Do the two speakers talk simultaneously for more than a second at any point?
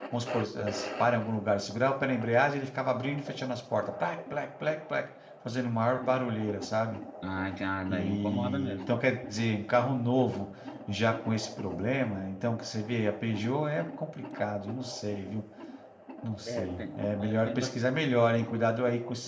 Yes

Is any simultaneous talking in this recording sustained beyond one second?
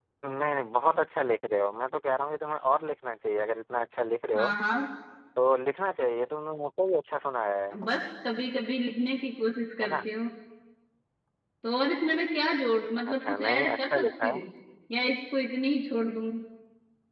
Yes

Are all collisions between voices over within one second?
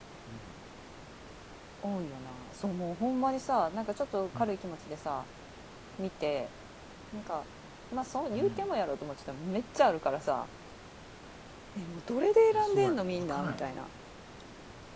No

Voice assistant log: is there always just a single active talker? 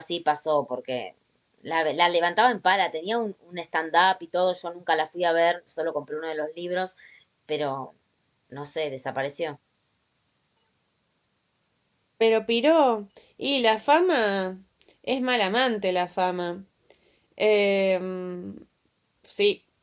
Yes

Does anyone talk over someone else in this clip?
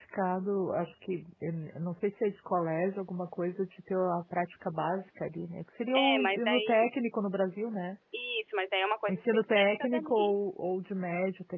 Yes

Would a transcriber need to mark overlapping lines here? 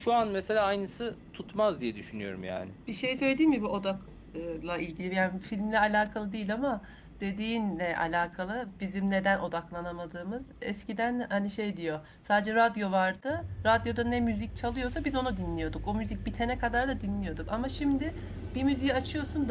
No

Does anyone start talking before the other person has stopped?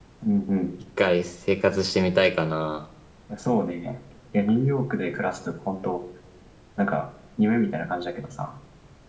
No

